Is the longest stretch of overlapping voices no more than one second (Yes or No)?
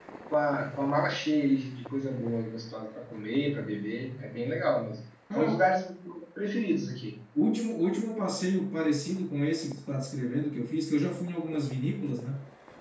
Yes